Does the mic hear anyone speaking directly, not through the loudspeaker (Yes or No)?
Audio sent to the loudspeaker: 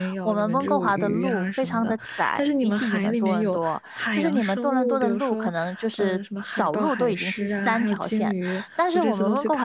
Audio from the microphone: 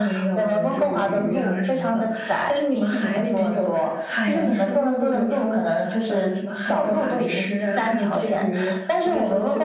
No